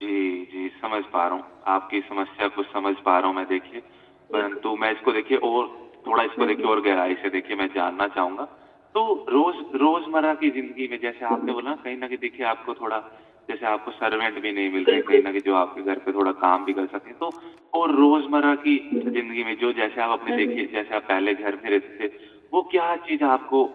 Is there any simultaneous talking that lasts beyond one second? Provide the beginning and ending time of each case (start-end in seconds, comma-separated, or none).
none